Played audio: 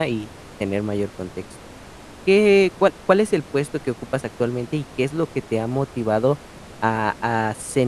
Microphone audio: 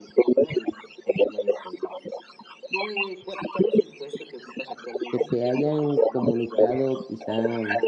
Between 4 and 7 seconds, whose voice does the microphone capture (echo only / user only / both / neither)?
both